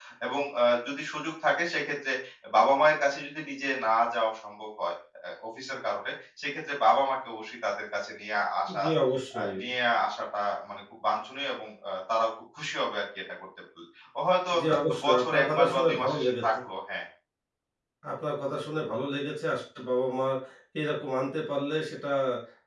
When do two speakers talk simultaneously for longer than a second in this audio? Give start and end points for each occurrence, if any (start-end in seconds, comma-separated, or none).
15.0-16.4